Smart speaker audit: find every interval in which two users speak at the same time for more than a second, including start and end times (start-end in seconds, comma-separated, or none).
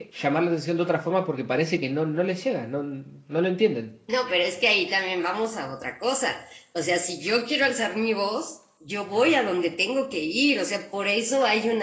none